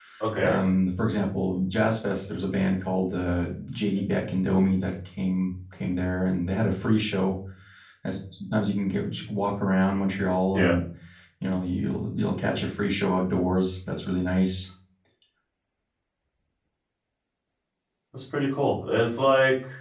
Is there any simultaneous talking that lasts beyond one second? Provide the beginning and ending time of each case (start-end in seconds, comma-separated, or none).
none